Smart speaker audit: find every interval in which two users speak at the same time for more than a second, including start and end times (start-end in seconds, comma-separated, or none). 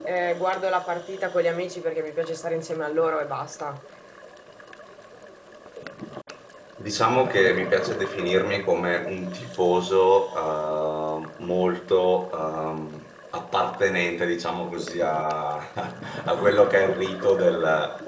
none